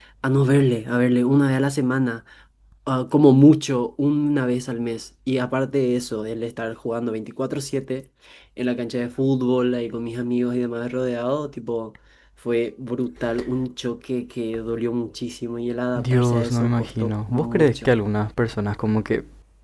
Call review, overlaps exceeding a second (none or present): present